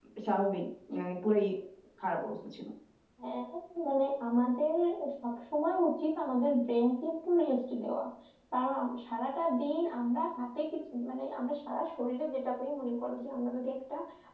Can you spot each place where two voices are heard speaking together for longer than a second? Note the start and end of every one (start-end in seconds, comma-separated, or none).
none